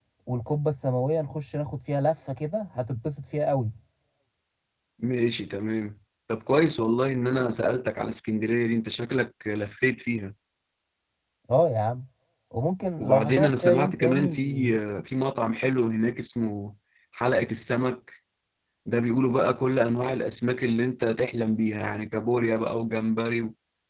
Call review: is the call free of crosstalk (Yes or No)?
No